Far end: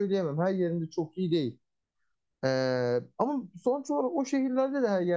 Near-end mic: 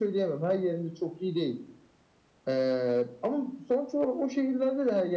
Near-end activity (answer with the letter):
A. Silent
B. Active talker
A